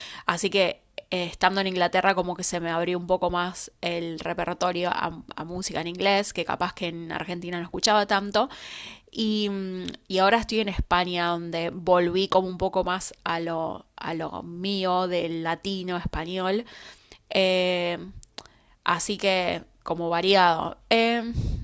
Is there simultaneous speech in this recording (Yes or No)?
No